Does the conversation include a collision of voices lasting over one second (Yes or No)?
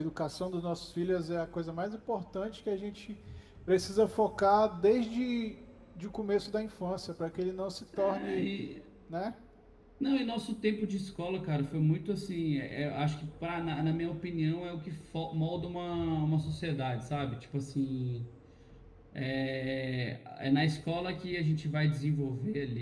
No